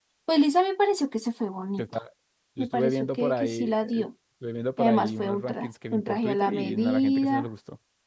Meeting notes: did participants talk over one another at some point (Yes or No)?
Yes